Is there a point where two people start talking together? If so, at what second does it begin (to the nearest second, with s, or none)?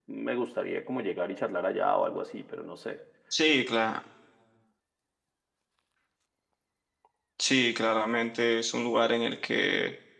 none